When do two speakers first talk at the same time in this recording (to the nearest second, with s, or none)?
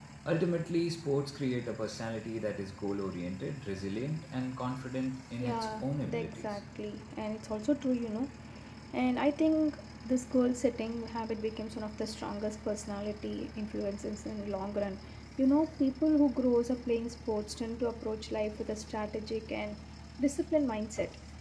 5 s